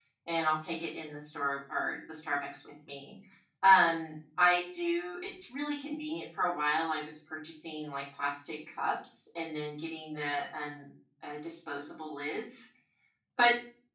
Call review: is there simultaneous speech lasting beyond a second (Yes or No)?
No